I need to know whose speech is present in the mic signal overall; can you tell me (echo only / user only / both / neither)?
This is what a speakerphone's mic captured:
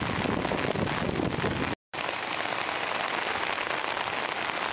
neither